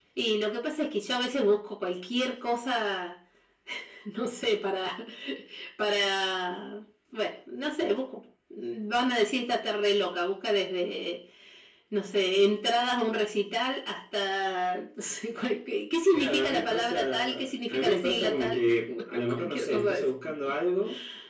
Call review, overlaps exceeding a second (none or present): present